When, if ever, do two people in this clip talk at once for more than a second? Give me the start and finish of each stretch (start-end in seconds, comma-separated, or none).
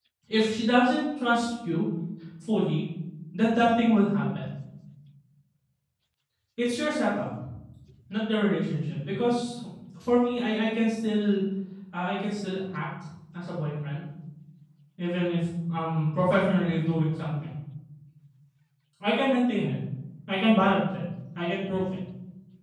none